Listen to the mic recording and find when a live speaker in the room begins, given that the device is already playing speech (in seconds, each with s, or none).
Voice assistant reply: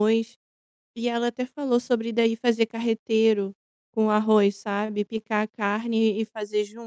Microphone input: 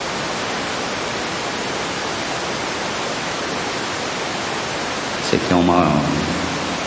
5.2 s